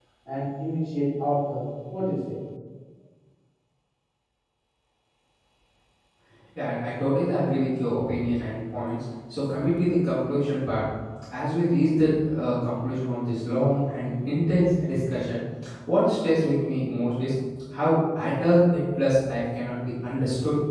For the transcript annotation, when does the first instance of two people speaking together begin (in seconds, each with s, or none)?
none